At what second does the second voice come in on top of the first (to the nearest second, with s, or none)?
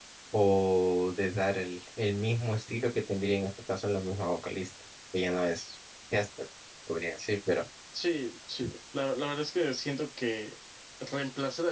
none